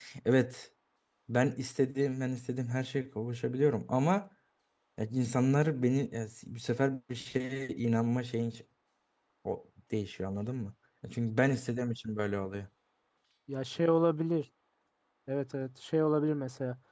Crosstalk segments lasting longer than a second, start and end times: none

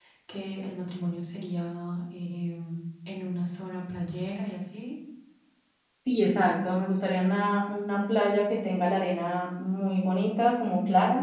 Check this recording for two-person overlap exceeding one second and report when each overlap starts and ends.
none

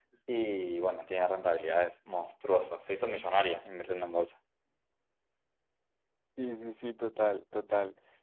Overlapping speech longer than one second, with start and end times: none

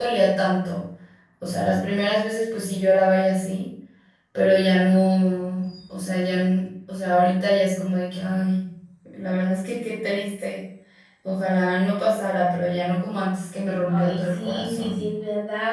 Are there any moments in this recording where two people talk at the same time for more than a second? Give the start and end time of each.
13.9-15.1

